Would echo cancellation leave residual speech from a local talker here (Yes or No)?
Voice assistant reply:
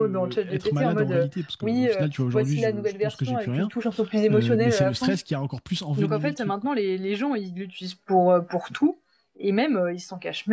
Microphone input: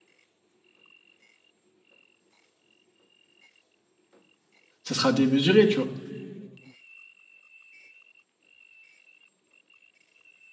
Yes